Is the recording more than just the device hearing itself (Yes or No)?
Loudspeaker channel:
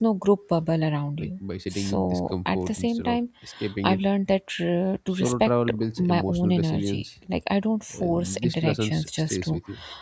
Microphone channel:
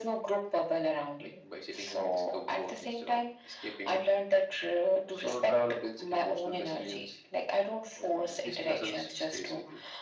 No